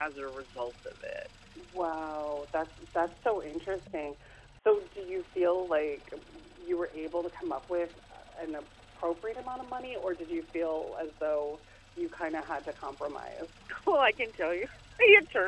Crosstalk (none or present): none